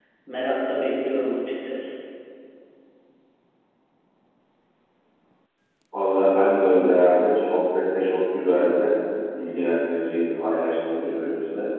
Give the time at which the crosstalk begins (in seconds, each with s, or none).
none